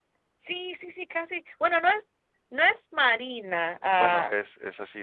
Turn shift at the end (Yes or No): Yes